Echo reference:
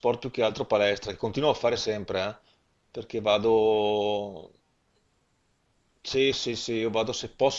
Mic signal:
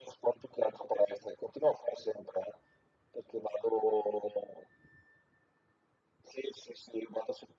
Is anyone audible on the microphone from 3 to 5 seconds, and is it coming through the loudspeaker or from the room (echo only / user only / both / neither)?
echo only